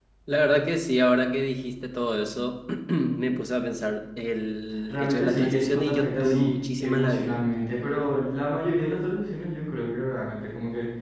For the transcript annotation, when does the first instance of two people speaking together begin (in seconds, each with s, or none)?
4.9 s